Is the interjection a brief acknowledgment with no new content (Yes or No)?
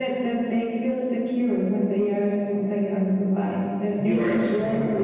No